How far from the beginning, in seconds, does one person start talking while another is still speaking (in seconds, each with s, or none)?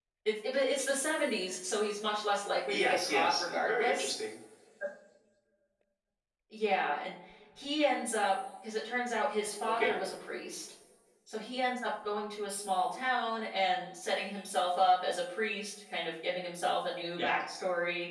2.7 s